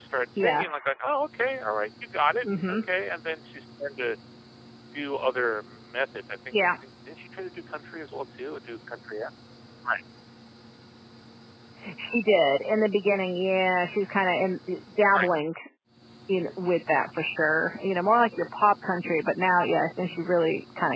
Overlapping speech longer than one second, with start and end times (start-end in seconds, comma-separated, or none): none